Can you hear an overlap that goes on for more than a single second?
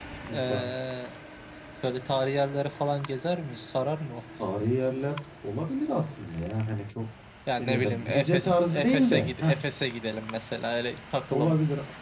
Yes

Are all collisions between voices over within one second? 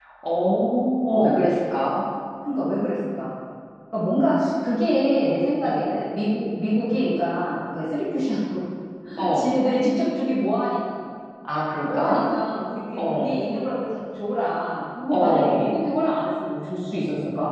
Yes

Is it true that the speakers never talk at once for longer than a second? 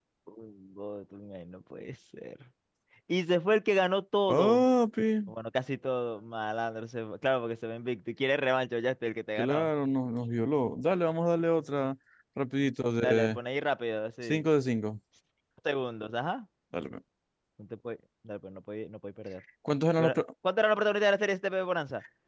Yes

